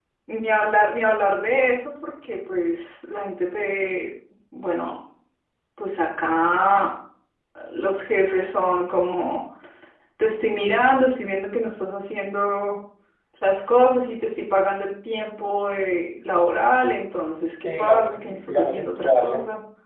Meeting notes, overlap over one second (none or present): present